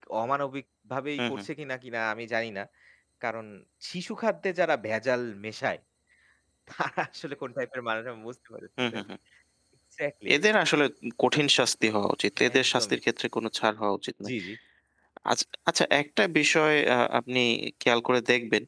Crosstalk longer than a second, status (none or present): none